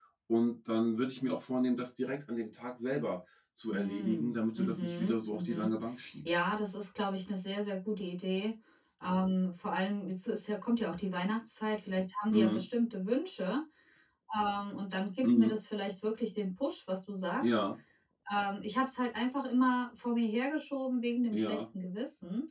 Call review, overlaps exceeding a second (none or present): present